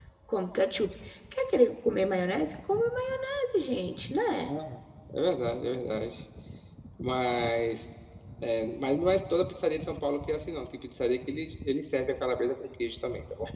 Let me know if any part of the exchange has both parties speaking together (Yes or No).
No